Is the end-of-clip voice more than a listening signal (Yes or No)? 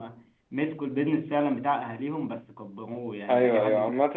Yes